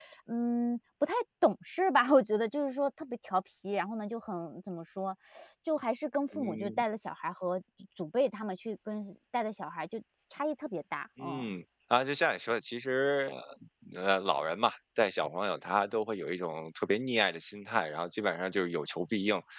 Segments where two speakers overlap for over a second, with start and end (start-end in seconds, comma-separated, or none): none